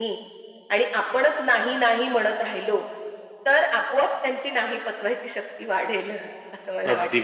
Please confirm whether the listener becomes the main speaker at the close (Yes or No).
Yes